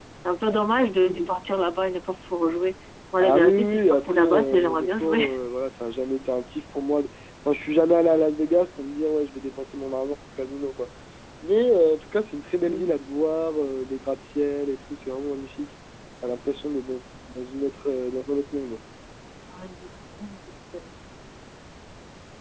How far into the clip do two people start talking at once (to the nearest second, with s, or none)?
3 s